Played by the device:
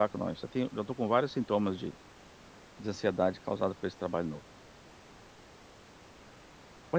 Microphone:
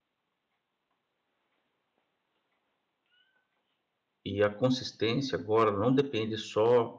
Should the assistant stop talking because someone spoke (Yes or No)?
Yes